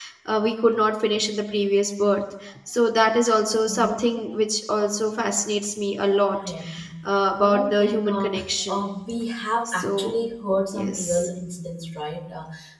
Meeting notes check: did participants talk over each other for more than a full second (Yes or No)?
Yes